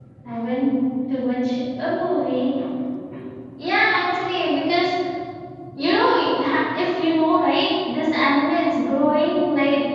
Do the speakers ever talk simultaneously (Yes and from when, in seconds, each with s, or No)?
No